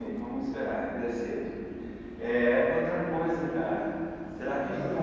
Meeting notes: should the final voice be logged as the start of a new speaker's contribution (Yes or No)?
No